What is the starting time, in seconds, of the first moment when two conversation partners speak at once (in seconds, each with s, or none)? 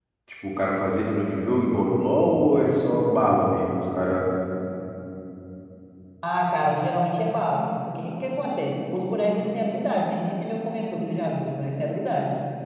none